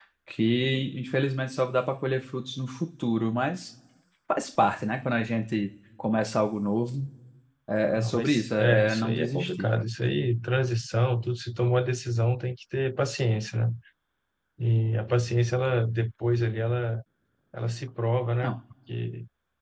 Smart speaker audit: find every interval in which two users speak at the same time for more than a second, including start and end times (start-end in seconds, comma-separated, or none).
7.9-9.7